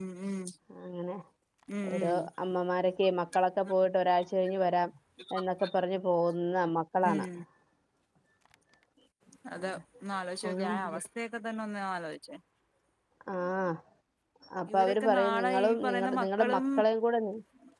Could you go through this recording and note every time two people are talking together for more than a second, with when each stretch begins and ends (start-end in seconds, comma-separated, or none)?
14.7-16.6